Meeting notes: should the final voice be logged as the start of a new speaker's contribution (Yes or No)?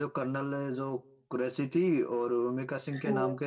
No